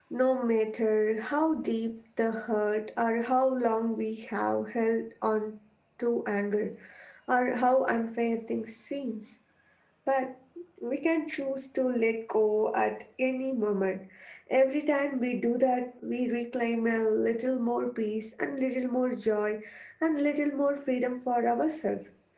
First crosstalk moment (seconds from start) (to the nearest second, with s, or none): none